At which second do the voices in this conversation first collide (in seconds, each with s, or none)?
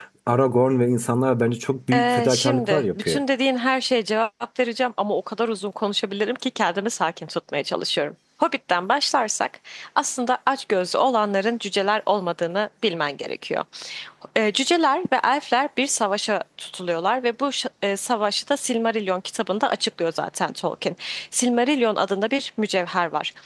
1.9 s